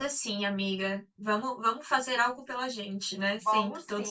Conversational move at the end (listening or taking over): taking over